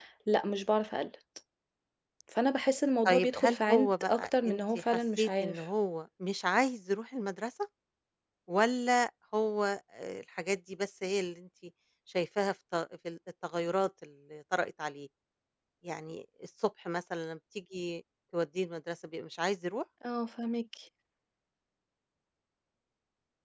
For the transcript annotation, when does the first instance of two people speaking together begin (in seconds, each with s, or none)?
3.1 s